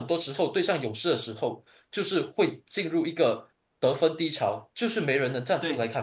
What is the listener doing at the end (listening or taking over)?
taking over